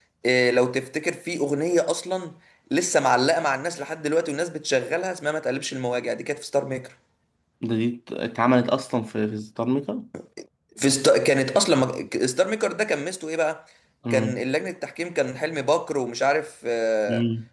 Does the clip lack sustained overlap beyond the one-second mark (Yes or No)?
Yes